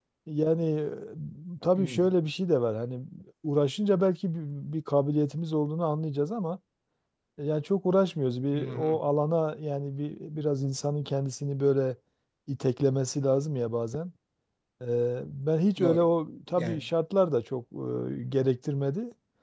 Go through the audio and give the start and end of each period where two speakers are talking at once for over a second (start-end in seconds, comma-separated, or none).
none